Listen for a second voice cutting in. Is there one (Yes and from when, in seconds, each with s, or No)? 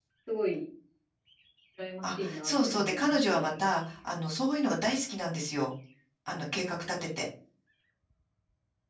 Yes, from 2.0 s